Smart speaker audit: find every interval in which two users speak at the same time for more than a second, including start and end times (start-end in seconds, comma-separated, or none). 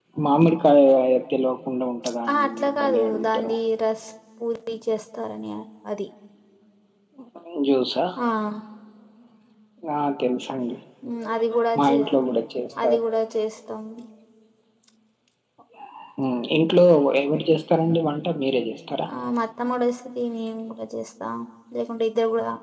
2.3-3.5